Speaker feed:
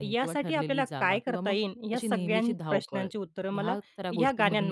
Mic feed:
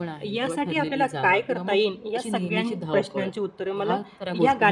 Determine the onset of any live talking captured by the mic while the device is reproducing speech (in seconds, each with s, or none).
none